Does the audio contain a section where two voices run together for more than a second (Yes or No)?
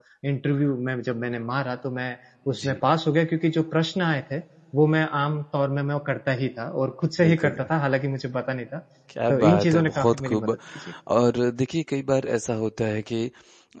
Yes